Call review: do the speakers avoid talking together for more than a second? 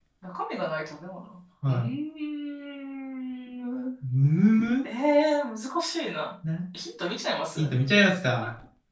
Yes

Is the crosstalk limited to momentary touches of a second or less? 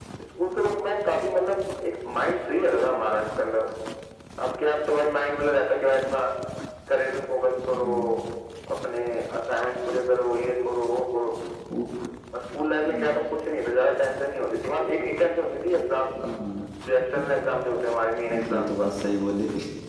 Yes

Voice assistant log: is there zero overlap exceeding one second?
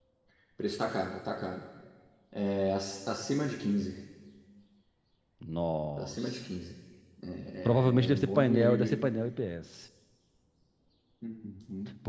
No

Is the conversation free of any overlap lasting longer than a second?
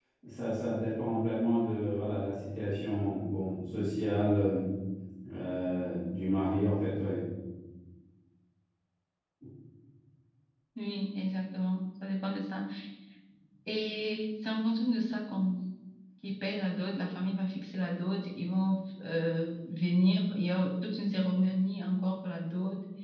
Yes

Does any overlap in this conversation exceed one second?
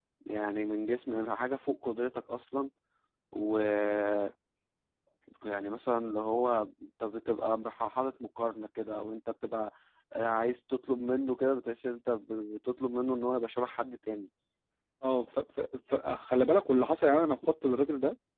No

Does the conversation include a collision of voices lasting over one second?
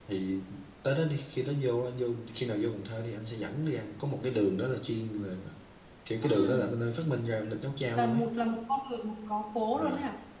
No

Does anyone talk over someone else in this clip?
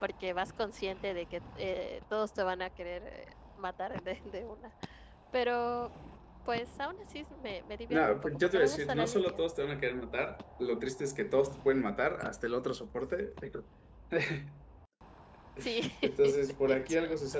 Yes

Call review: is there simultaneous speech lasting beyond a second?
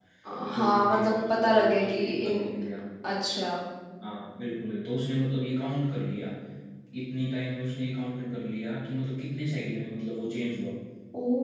Yes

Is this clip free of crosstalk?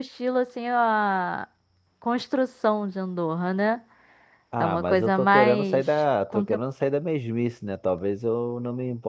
No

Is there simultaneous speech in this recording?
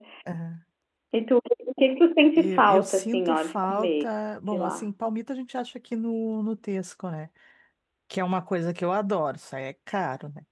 Yes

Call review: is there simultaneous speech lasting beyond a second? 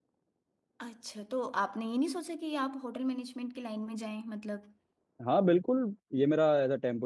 No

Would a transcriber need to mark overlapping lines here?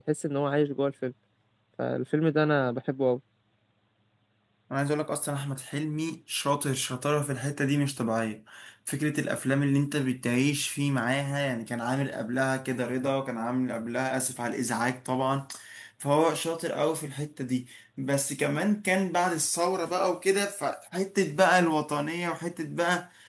No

